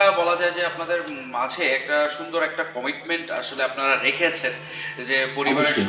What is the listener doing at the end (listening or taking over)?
listening